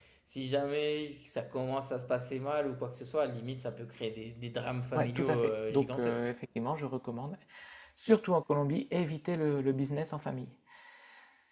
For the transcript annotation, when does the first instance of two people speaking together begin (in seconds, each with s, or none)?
4.9 s